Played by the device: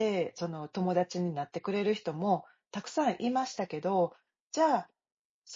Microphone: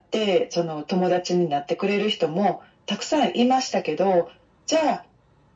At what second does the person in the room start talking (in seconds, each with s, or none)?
none